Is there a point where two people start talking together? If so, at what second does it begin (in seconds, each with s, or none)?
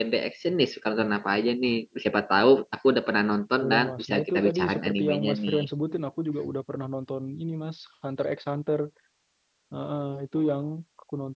3.6 s